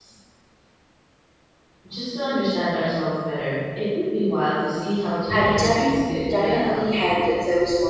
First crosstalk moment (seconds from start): 5.3 s

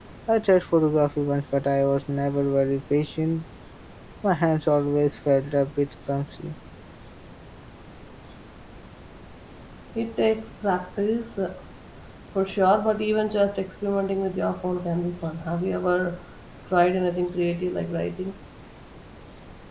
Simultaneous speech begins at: none

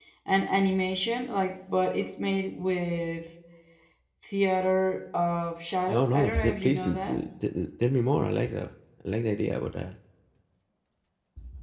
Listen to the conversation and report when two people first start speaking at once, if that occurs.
5.9 s

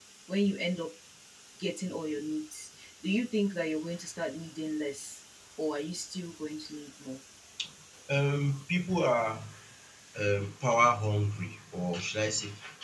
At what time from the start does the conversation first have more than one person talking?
none

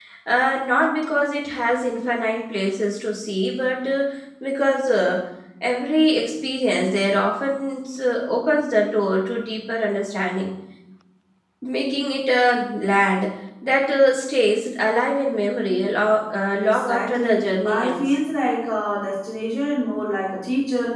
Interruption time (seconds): 16.6 s

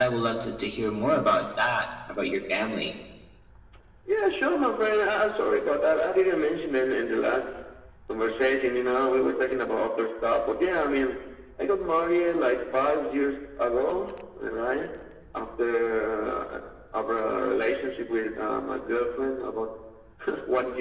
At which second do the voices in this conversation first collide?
none

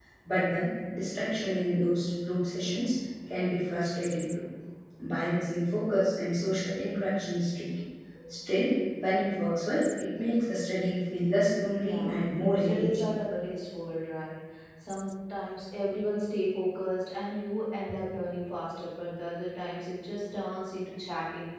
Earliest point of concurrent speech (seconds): 11.8 s

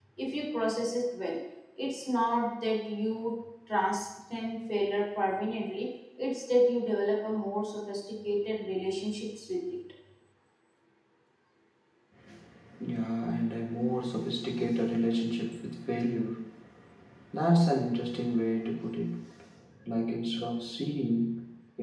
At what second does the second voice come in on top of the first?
none

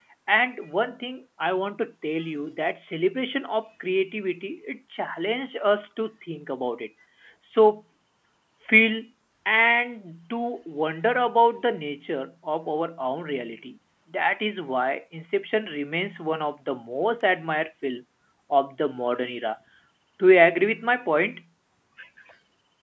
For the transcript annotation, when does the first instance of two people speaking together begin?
none

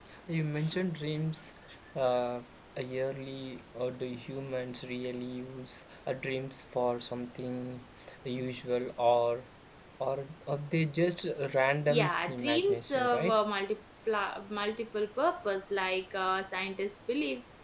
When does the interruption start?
11.9 s

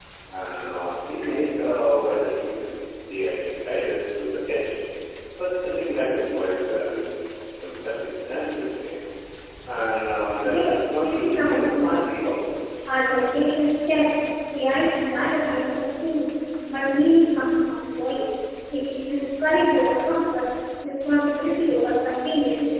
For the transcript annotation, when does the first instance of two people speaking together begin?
10.4 s

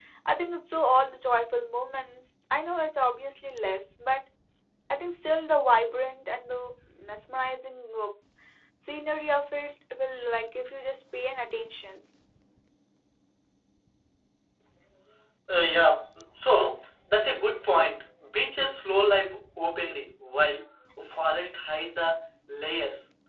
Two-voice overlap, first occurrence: none

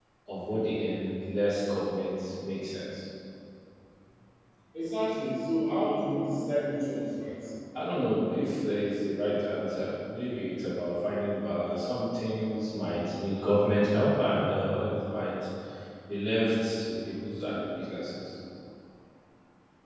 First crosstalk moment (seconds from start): none

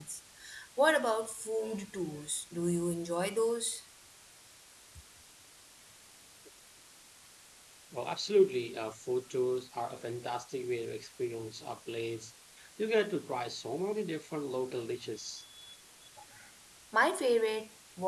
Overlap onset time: none

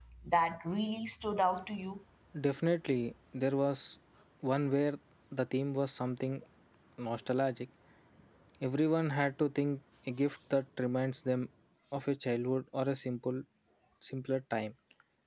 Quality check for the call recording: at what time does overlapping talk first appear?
none

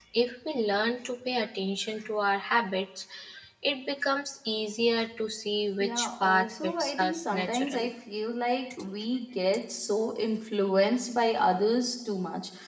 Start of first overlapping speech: 5.8 s

